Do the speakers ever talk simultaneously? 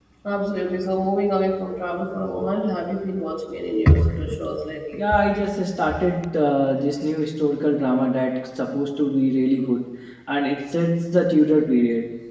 No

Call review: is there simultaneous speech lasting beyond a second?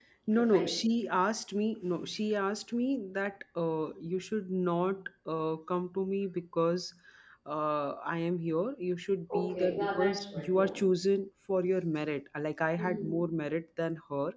Yes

